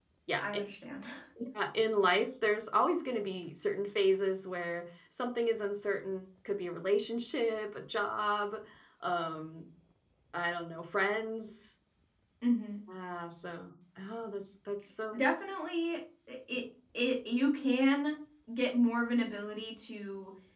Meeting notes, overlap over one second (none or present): none